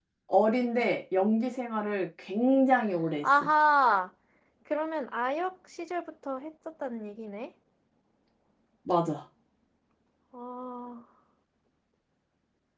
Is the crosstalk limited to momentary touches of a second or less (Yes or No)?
Yes